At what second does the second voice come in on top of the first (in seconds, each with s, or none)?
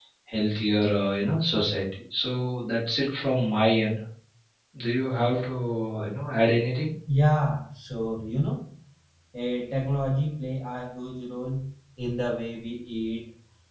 none